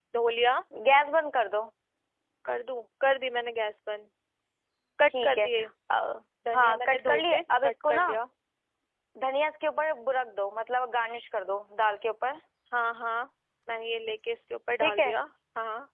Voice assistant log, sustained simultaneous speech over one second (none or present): present